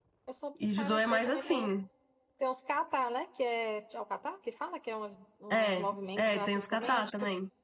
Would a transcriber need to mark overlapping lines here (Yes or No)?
Yes